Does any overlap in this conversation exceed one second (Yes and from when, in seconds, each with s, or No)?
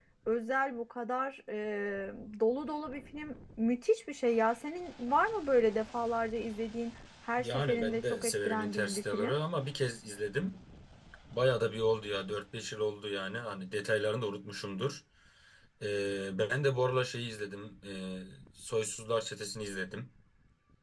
Yes, from 7.4 s